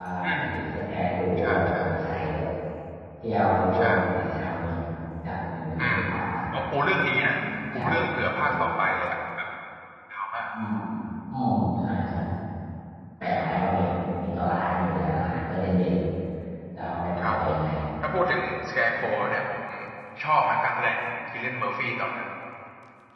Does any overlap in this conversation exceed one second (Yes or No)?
No